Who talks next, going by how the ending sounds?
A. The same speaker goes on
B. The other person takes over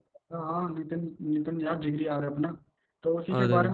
A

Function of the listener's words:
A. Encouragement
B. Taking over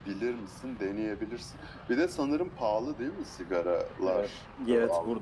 B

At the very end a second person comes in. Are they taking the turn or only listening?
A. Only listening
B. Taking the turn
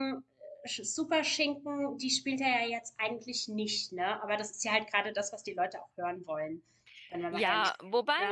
B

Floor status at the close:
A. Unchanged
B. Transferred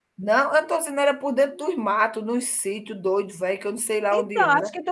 B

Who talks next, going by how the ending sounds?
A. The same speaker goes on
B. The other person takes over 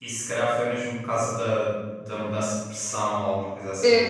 B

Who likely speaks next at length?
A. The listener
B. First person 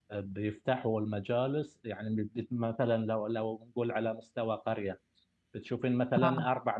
B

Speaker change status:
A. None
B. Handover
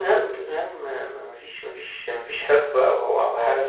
A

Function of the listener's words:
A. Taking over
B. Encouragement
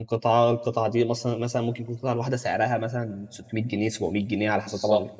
A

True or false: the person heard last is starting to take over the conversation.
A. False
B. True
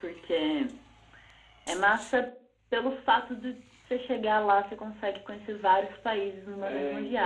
B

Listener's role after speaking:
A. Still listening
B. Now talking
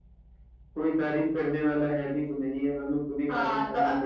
B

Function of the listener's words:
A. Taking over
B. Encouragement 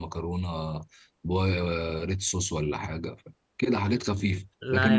B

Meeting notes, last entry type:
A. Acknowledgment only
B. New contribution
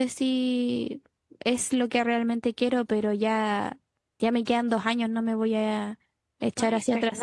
B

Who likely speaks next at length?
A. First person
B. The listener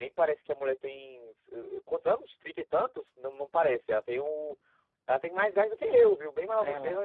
B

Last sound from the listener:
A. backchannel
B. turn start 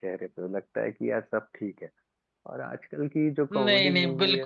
B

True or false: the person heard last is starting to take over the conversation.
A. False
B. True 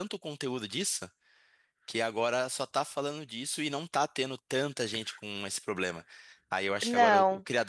A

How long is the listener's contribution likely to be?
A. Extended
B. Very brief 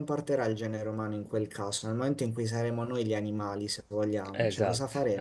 A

